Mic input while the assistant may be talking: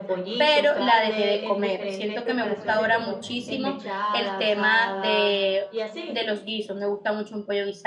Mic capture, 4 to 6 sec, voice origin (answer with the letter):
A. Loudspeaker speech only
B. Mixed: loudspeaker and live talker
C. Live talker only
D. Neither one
B